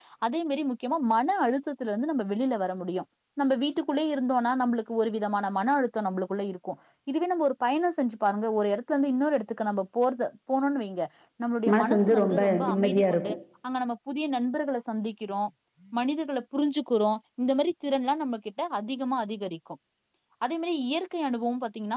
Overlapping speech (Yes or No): Yes